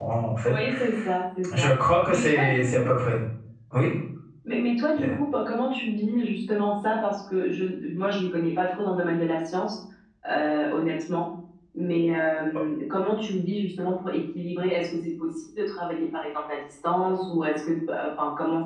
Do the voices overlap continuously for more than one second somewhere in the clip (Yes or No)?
Yes